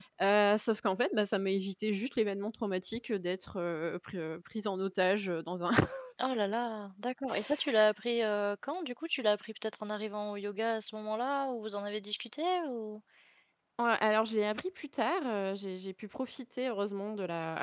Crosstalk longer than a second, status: none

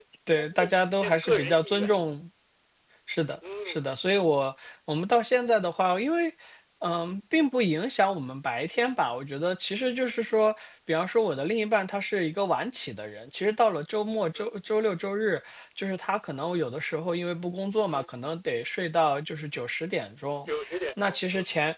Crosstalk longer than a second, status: present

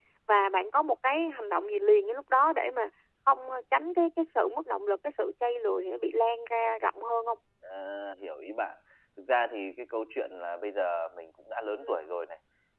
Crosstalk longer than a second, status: none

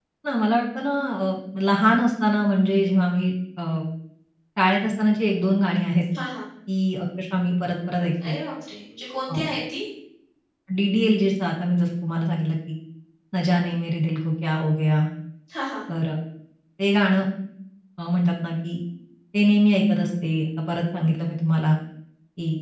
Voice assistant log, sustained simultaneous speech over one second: none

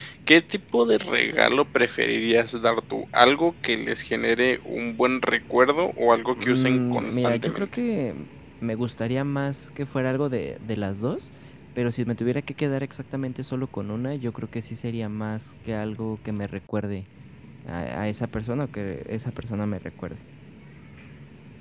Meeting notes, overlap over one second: present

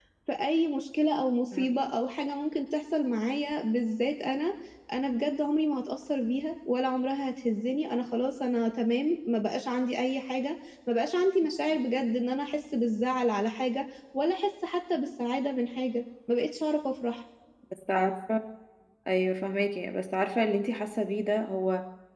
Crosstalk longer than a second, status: none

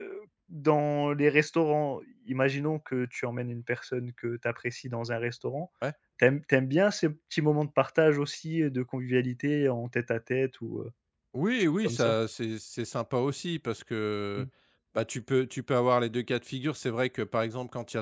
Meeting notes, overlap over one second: none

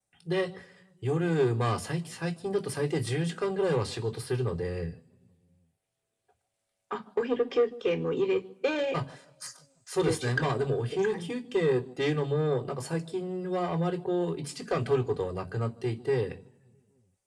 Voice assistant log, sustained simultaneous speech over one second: present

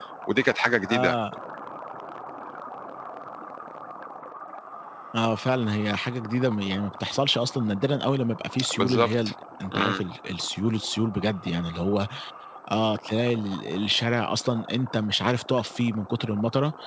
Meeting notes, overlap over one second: none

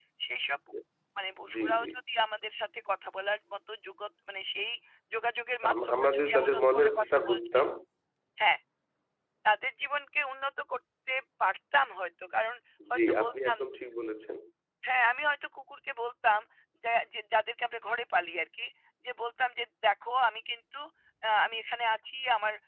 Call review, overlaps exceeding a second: present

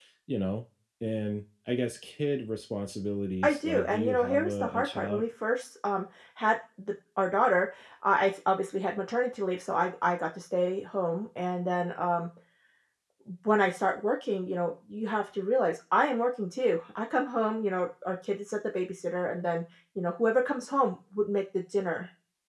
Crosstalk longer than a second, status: present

